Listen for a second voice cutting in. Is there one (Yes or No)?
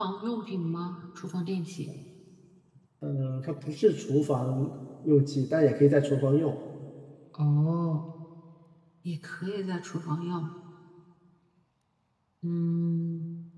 No